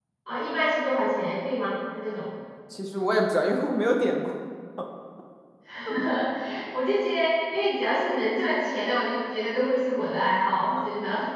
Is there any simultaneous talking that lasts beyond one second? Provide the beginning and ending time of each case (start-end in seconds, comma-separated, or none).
none